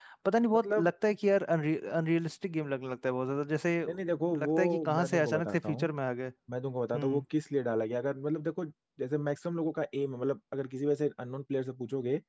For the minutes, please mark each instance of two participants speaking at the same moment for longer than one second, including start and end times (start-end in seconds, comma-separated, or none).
4.4-5.9